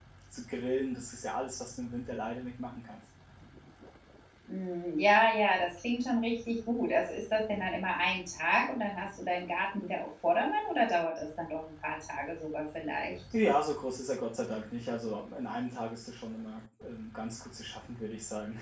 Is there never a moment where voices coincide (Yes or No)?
Yes